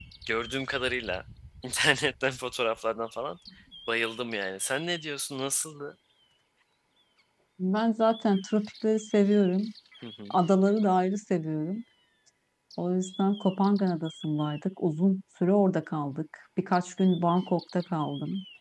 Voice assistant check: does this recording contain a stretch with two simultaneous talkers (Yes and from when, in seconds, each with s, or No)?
No